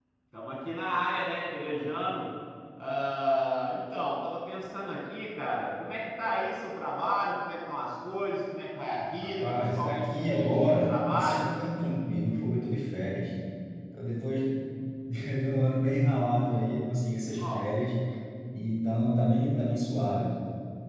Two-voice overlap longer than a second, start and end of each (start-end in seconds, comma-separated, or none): 9.2-11.5